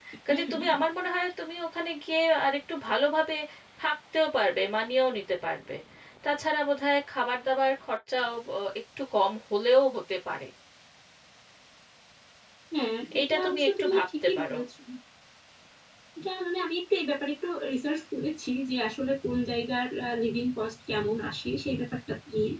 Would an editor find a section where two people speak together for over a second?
Yes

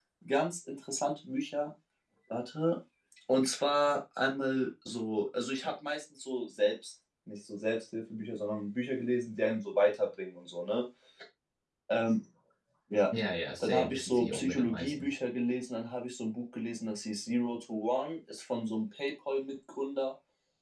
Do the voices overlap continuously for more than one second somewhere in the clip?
Yes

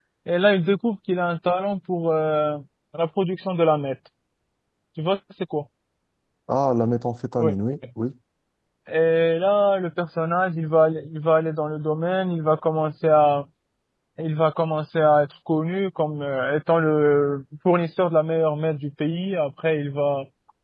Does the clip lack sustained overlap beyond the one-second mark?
Yes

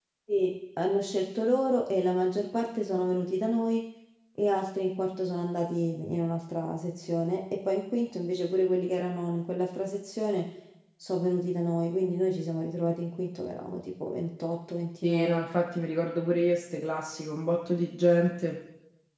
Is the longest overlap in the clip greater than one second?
No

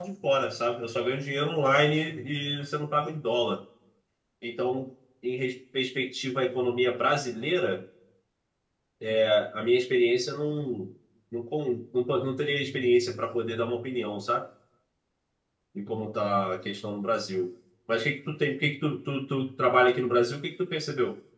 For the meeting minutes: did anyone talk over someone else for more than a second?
No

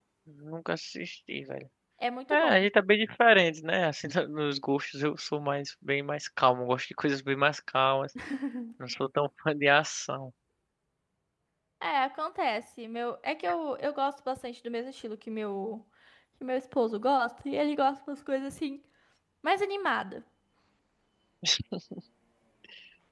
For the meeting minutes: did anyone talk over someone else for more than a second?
No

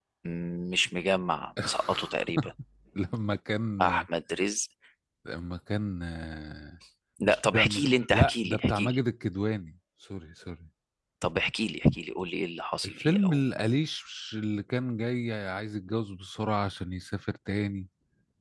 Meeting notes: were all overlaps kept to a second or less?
No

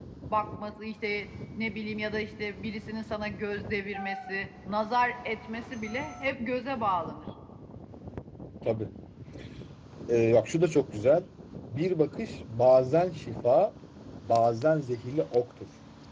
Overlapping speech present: No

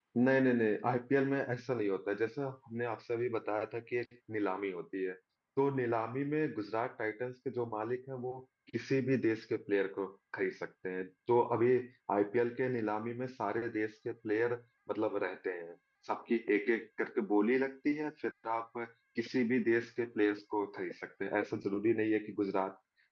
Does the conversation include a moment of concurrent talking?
No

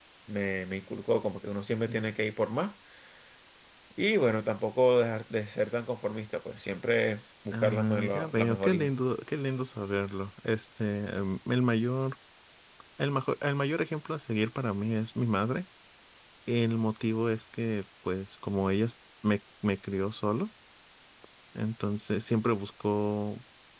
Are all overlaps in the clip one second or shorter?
No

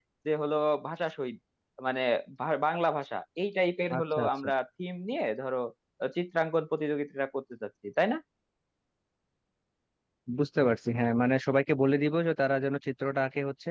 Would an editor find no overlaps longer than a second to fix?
Yes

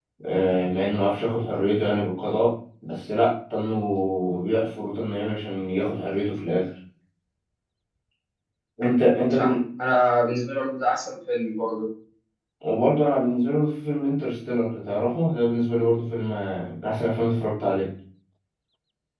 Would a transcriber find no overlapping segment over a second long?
Yes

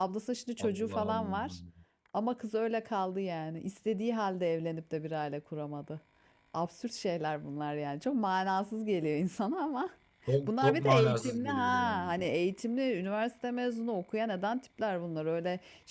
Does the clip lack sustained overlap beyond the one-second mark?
No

